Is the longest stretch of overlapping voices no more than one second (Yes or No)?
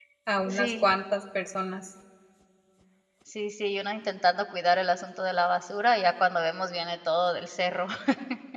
Yes